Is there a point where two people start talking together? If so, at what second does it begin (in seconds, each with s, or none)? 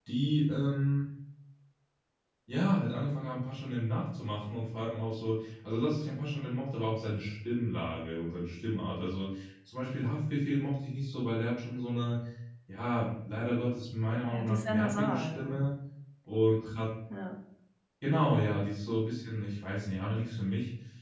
14.3 s